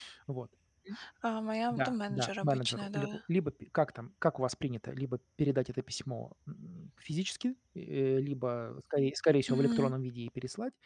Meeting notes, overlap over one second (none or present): present